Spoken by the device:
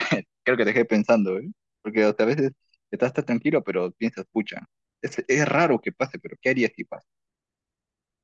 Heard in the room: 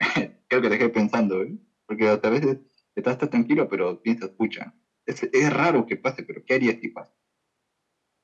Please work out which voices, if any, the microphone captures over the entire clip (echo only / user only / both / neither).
echo only